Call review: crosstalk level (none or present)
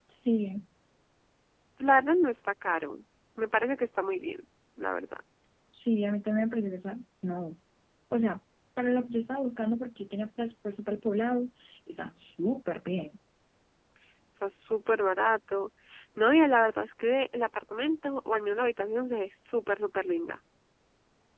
none